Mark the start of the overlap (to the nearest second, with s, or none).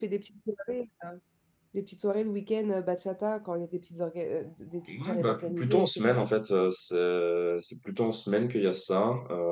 5 s